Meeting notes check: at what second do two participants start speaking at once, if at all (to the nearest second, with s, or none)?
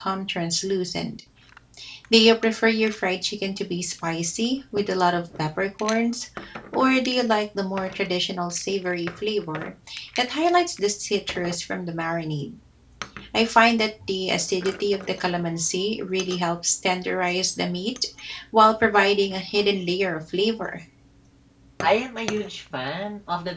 none